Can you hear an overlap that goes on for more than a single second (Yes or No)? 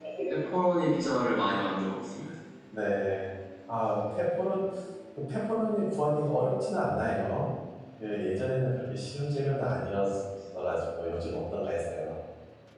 No